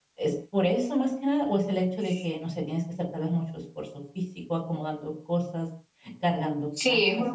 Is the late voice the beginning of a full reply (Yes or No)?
Yes